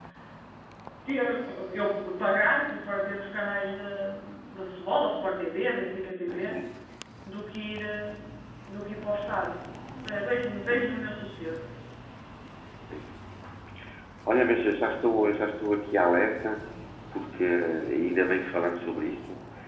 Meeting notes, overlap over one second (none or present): none